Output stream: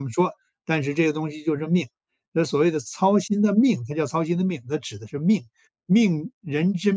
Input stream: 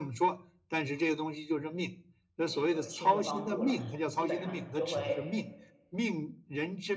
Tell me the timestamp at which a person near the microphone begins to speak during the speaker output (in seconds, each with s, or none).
2.4 s